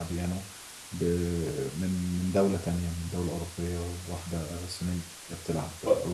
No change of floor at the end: No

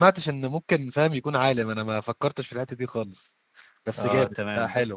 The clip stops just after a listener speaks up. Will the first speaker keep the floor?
No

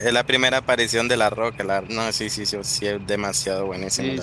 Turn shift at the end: Yes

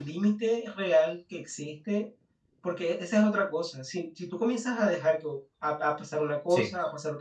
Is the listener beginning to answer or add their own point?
No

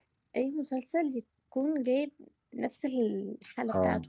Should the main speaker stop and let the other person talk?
Yes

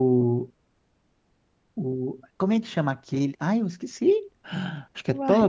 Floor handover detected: No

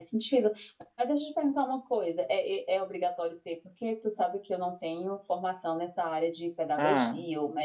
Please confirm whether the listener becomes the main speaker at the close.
No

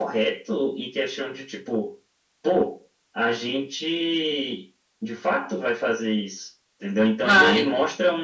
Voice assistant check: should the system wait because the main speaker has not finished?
Yes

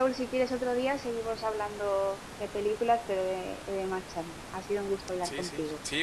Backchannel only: No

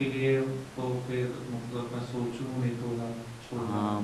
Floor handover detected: Yes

